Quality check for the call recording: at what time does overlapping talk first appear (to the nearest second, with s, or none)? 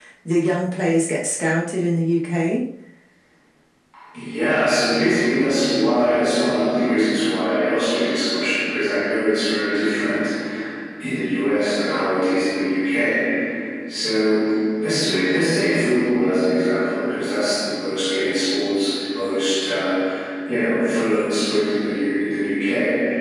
none